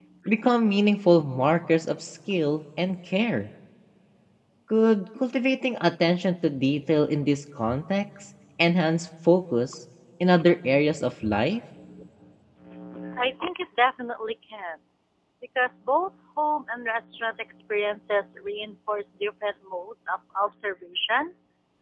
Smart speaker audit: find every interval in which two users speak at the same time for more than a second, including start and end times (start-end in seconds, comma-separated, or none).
none